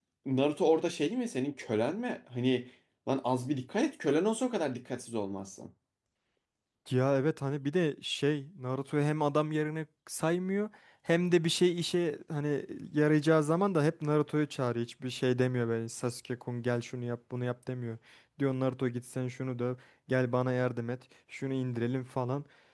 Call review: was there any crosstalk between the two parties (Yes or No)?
No